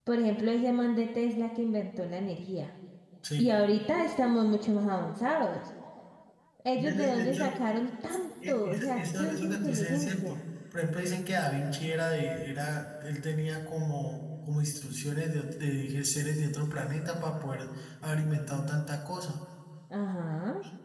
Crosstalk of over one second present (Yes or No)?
Yes